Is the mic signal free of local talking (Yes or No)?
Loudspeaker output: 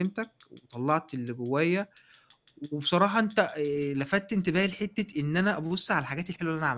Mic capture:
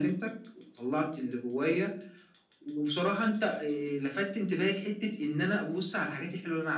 Yes